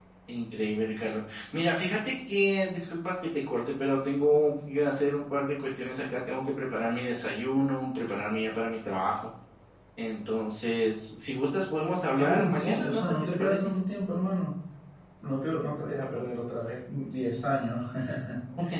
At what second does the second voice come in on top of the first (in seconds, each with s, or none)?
12.2 s